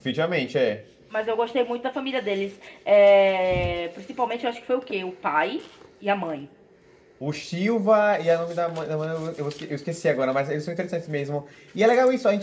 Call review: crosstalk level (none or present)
none